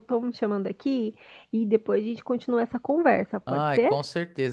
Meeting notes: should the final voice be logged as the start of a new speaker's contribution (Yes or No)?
Yes